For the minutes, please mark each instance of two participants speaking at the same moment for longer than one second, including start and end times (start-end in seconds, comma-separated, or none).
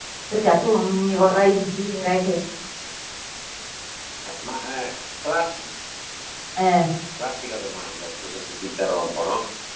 none